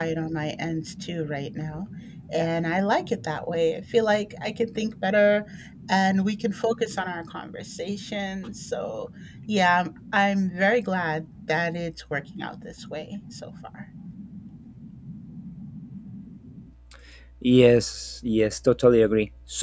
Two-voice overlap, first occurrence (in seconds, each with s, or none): none